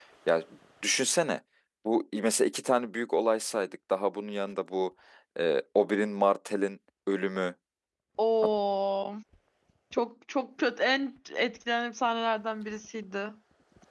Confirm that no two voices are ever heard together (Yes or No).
Yes